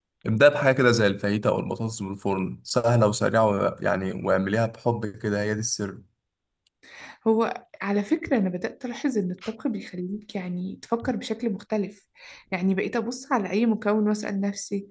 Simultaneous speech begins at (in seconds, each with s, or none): none